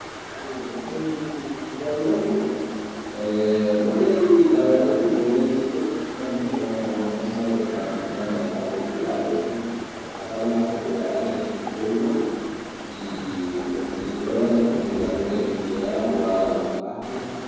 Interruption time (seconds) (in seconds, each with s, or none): none